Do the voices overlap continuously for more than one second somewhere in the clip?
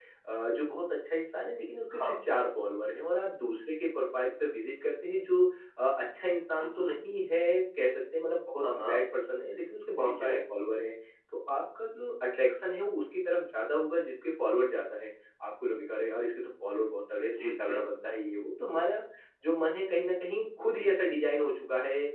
No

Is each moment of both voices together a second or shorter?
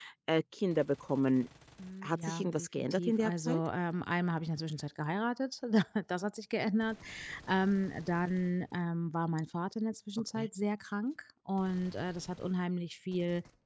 No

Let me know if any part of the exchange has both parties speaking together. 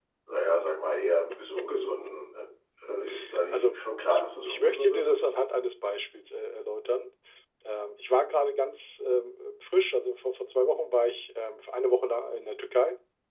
Yes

